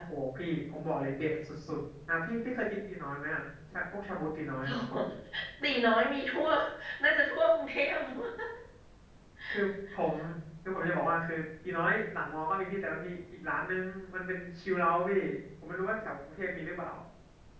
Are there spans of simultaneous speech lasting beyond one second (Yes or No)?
No